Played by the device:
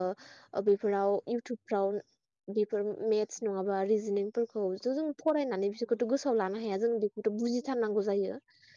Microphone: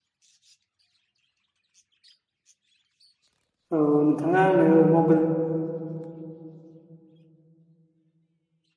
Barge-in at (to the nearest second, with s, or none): 4 s